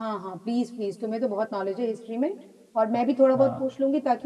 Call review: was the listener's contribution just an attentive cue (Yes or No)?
Yes